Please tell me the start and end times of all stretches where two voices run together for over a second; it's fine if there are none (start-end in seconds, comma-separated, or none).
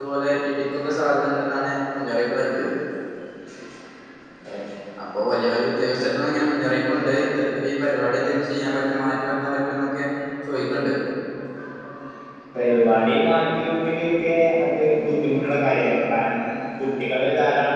none